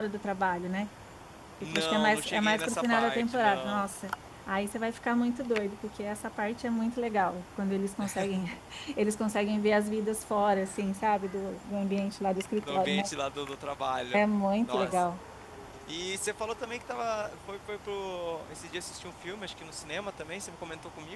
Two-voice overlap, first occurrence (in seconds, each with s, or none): 1.7 s